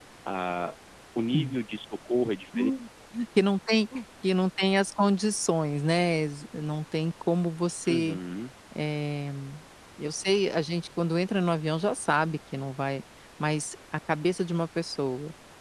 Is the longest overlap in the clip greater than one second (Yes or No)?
No